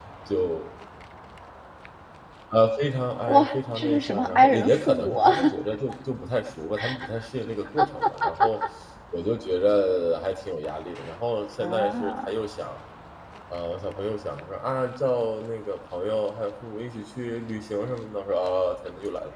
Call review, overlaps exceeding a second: present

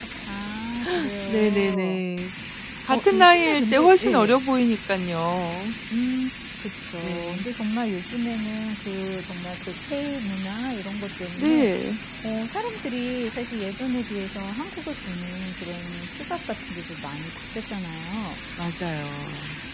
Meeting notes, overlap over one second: present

